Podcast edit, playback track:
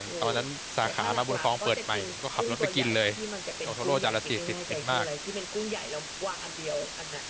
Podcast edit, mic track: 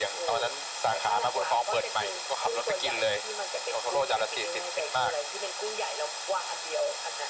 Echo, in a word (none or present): present